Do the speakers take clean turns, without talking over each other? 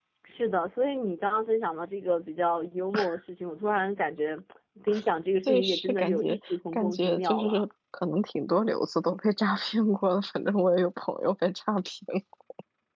No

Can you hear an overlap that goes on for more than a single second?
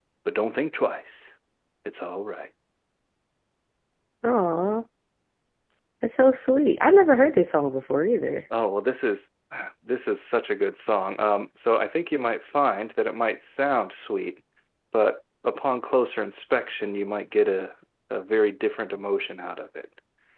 No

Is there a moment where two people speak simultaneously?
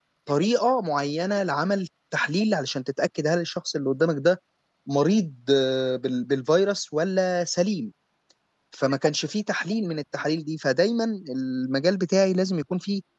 No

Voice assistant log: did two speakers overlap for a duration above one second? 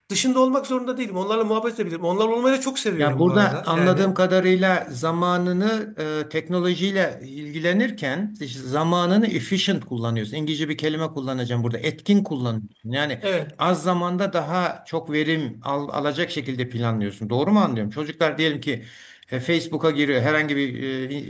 Yes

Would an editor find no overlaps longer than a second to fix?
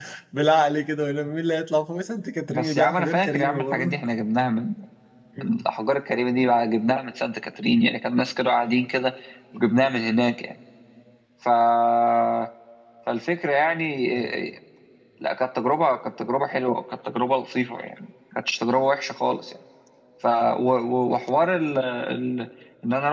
No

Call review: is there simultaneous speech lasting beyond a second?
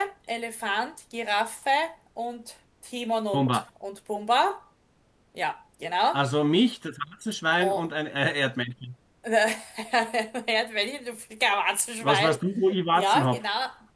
No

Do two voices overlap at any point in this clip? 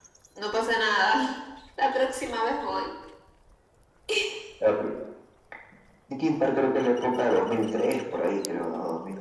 No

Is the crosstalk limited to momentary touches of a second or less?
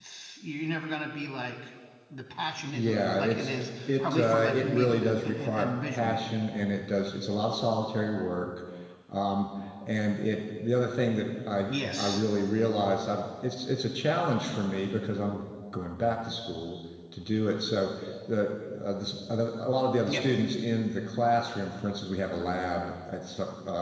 No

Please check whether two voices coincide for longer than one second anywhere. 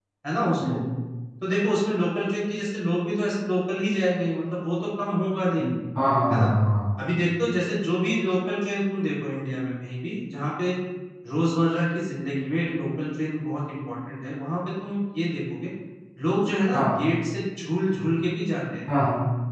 No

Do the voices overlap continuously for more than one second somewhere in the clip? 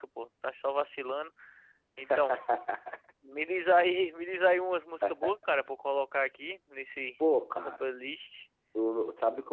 No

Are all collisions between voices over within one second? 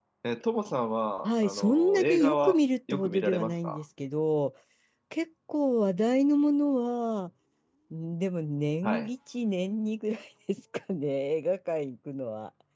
No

